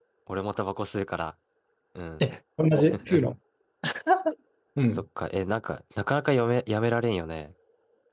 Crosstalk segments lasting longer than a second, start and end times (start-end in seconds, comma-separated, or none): none